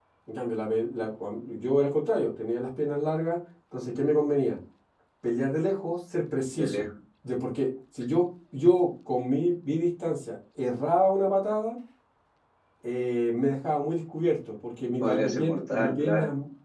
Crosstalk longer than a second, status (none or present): present